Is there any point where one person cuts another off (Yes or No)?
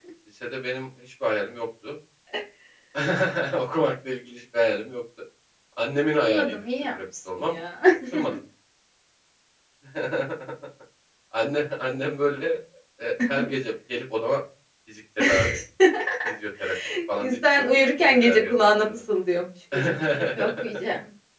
Yes